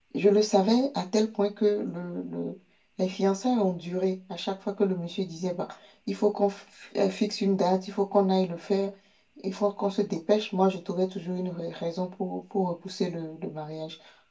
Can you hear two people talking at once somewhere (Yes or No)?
No